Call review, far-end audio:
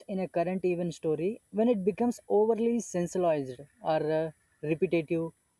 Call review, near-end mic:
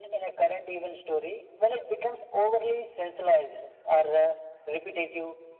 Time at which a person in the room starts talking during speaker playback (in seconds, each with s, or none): none